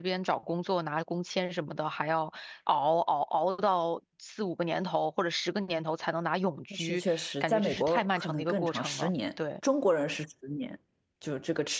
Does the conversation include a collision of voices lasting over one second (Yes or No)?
Yes